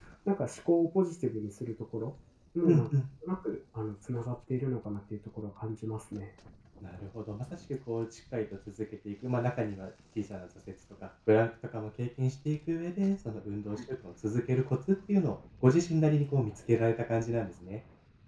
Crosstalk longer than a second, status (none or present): none